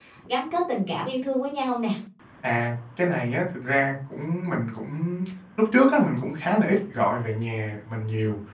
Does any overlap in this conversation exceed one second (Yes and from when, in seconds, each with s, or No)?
No